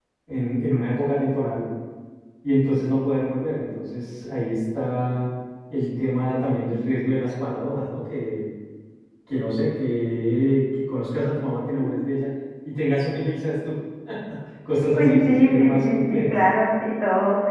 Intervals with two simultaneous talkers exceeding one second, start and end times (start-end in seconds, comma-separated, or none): 14.9-16.3